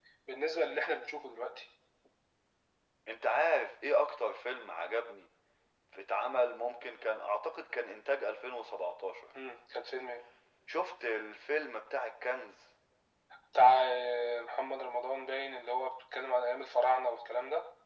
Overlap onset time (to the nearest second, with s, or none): none